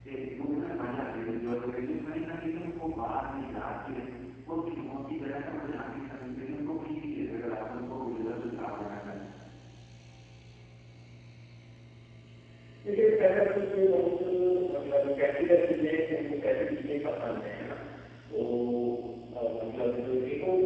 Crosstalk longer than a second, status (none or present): none